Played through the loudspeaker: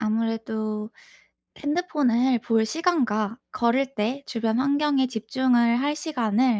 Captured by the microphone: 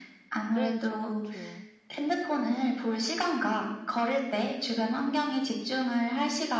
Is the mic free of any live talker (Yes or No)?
No